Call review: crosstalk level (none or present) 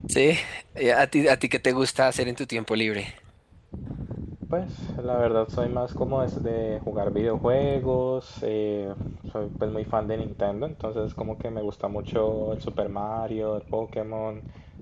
none